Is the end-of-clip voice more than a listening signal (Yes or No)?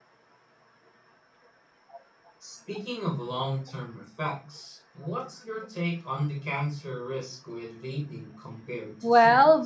Yes